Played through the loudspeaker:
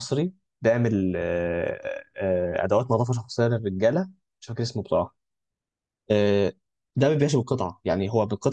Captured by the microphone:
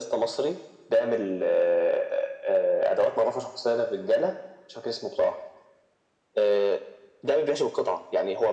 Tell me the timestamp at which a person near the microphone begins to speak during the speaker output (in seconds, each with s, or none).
none